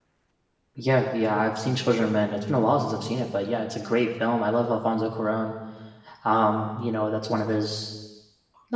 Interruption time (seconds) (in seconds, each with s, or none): none